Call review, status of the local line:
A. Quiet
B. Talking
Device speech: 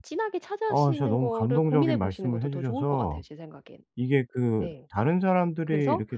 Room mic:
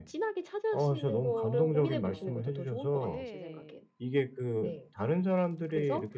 B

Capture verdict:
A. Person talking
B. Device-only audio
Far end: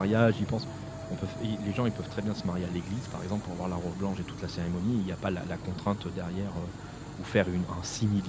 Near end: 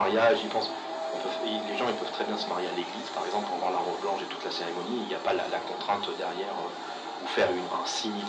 B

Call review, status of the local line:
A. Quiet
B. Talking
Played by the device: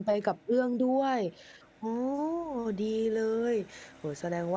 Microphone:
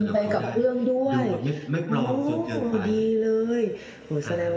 B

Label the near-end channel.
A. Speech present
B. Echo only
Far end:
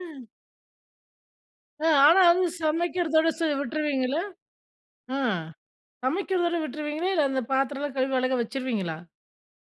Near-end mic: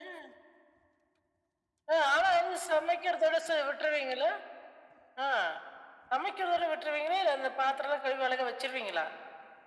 B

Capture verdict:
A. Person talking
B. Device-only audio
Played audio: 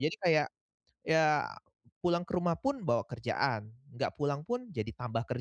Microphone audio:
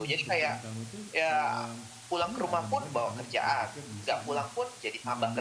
A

